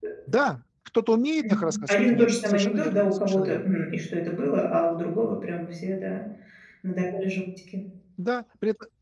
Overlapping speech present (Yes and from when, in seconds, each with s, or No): Yes, from 1.4 s